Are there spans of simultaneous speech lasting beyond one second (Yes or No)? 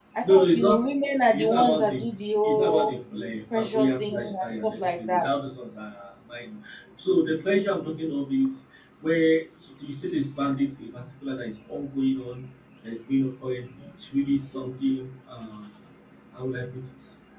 Yes